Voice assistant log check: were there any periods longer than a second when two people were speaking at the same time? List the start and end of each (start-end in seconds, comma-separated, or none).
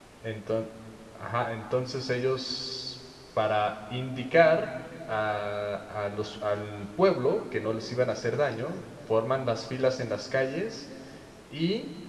none